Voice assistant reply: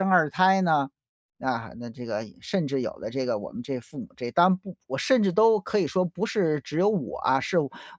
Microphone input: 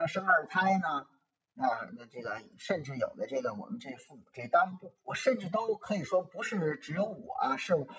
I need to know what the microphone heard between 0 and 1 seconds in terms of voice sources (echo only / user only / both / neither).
echo only